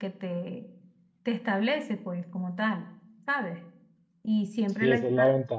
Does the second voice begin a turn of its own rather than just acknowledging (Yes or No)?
Yes